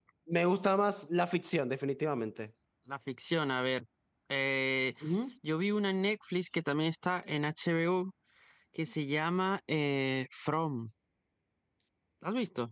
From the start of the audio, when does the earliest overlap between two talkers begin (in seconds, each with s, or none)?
none